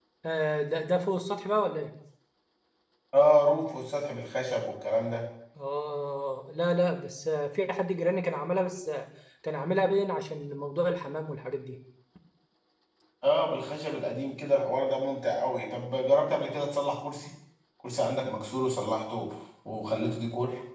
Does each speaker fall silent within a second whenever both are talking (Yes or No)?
Yes